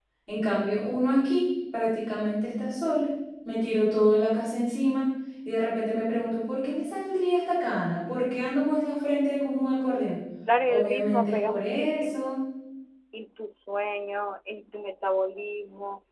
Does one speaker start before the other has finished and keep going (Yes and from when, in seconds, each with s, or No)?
Yes, from 10.6 s